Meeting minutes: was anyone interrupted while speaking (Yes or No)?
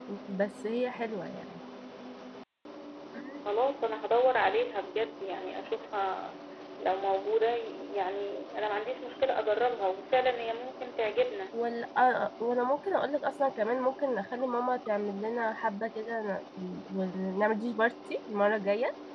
No